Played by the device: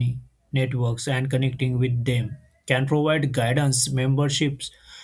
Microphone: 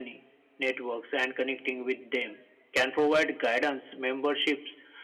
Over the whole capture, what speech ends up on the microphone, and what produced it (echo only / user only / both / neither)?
echo only